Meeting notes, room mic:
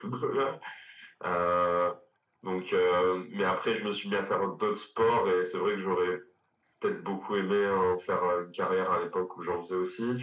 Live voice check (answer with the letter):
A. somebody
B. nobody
B